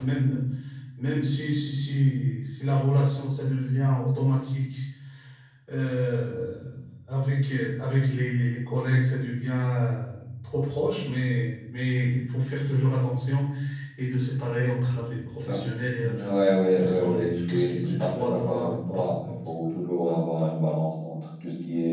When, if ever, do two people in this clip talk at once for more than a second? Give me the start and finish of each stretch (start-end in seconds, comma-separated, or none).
16.8-19.3